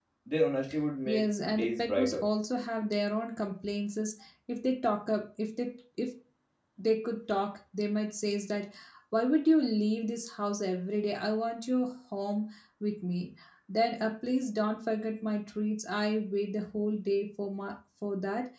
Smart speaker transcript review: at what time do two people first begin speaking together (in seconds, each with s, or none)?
1.1 s